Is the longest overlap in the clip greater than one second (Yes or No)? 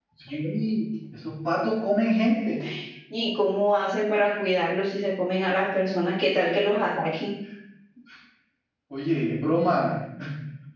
No